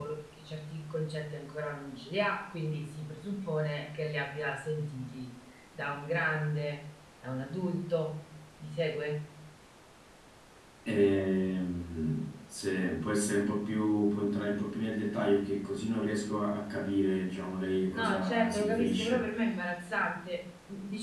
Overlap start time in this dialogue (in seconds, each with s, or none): 17.7 s